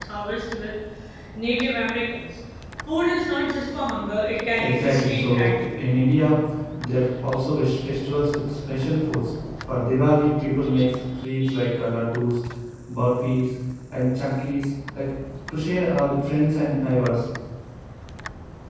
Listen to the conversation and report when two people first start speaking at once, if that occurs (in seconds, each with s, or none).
4.6 s